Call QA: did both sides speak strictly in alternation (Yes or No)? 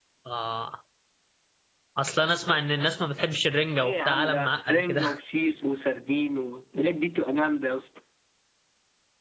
No